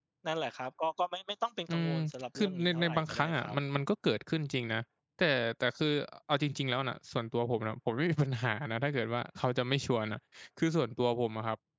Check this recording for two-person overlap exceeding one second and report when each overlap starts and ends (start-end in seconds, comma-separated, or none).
2.4-3.6